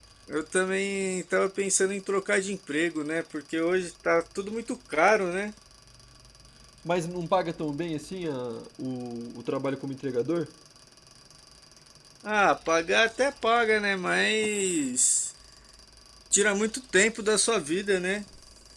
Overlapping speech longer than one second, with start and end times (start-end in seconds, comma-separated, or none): none